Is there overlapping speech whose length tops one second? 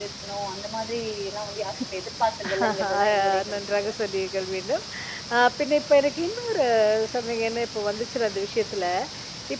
Yes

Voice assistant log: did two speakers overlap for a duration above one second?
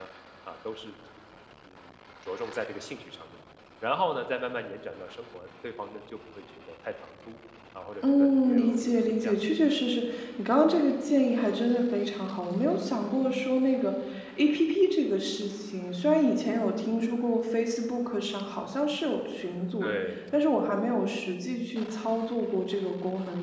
Yes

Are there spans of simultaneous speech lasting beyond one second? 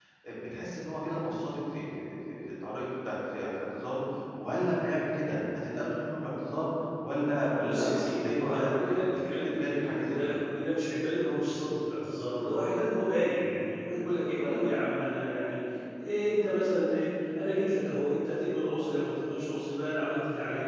Yes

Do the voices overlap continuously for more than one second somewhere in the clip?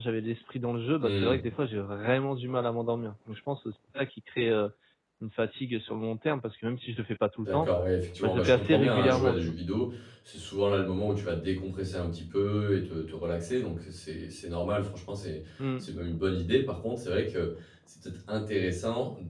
Yes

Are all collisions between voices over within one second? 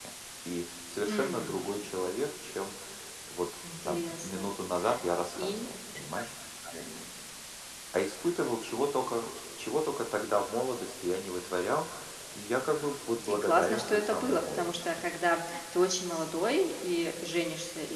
No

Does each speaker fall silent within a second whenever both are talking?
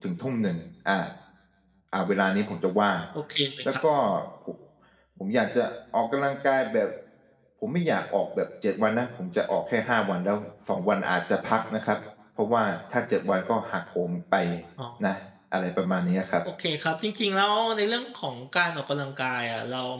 Yes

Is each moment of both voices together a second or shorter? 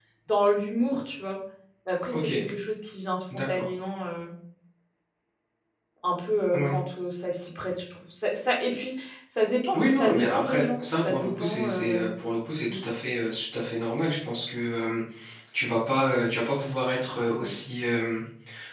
No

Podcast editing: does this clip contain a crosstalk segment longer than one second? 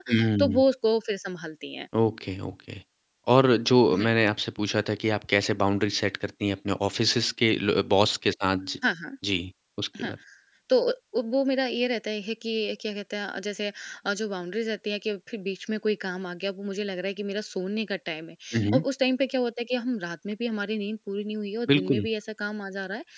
No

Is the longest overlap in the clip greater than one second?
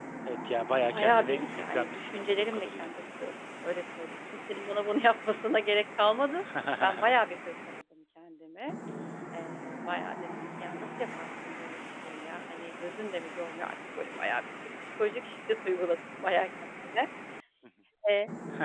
Yes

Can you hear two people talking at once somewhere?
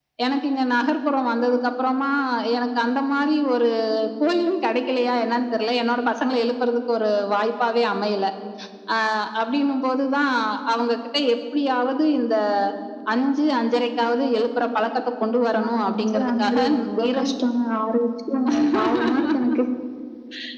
Yes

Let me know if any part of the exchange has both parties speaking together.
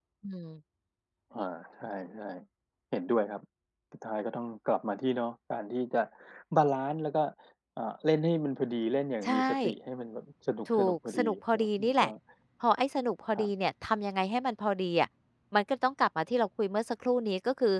Yes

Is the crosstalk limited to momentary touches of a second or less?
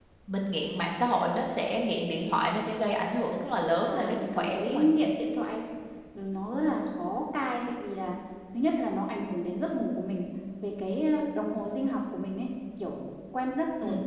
No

